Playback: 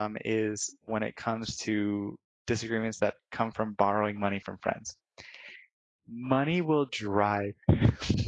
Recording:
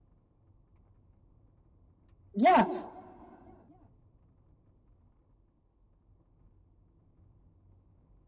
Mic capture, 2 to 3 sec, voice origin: user only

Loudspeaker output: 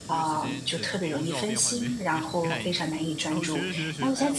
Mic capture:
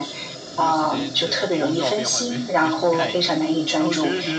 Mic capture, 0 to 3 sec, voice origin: echo only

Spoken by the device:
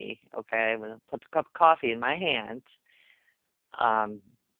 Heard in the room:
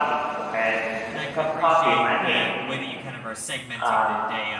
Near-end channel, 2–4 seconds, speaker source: both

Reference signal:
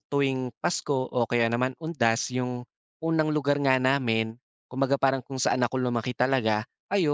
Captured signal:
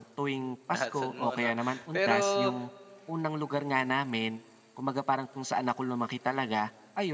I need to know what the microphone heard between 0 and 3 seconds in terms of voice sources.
both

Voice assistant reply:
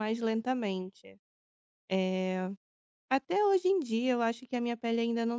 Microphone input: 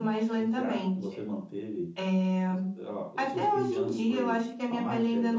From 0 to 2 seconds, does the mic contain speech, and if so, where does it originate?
both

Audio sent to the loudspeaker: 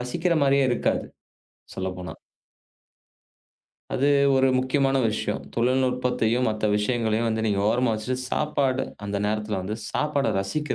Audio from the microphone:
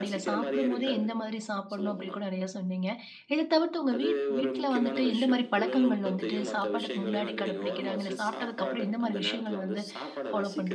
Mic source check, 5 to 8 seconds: both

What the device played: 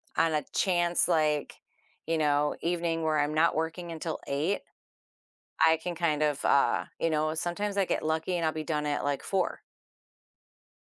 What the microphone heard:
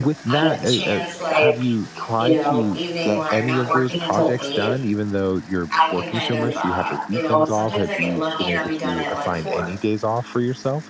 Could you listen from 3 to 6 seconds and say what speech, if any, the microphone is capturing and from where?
both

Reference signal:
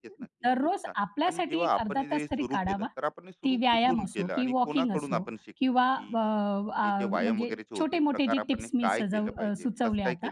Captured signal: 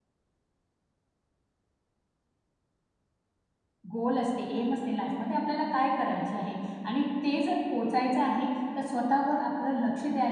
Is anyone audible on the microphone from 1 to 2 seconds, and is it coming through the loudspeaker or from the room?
neither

